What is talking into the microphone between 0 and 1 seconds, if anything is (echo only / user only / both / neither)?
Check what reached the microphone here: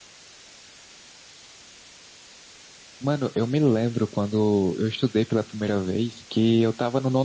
neither